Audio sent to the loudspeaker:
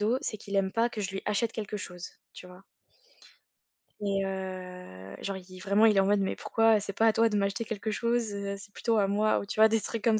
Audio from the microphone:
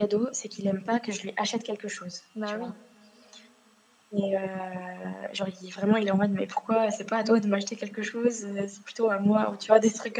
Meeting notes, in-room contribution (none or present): present